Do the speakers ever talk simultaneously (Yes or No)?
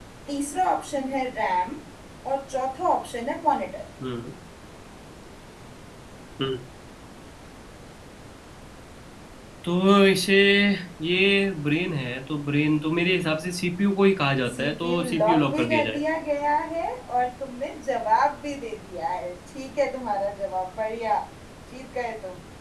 Yes